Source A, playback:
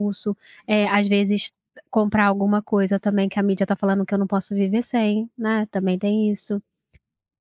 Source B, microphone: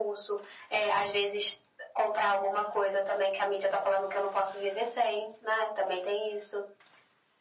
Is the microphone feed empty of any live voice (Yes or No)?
Yes